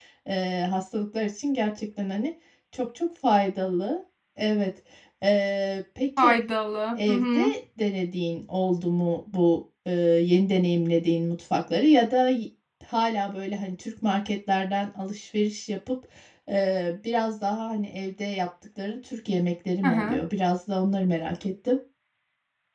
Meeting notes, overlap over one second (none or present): none